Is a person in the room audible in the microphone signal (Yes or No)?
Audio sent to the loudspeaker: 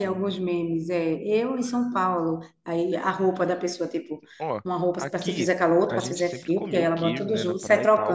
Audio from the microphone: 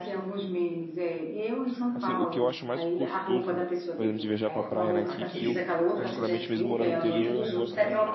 Yes